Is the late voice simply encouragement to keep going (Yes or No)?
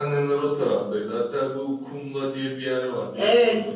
No